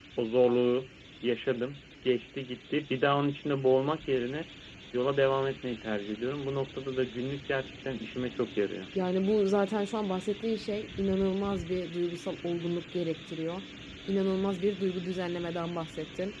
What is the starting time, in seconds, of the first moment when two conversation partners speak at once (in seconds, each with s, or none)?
none